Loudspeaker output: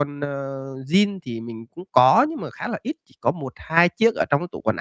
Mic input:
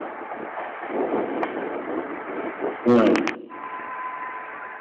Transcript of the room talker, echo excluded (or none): Ừm,